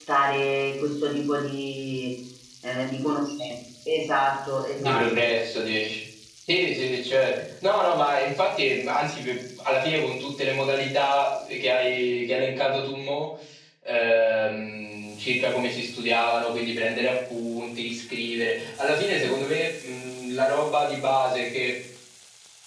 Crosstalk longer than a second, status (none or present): none